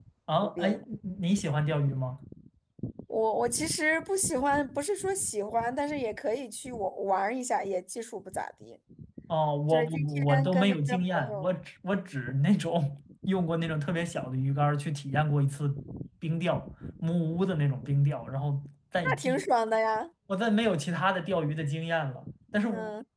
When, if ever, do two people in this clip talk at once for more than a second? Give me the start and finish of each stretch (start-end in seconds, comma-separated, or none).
9.7-11.5